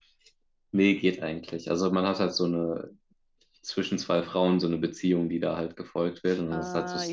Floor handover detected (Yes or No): Yes